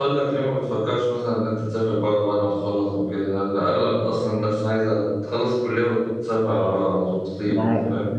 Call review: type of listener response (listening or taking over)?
taking over